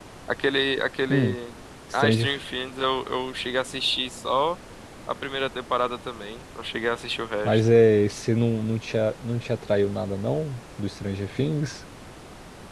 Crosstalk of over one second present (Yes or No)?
No